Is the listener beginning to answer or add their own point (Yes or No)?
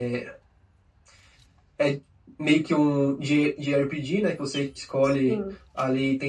No